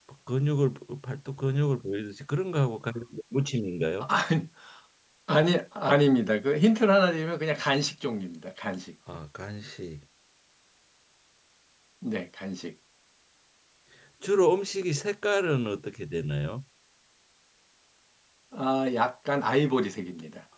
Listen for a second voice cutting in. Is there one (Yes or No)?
No